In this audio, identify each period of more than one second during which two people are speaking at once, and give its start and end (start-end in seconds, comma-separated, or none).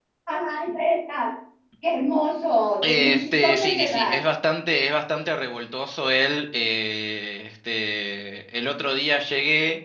2.8-4.2